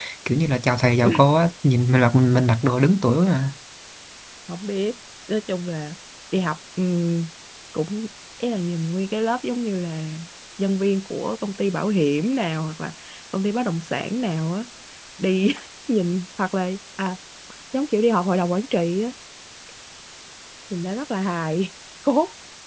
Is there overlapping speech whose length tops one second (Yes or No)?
No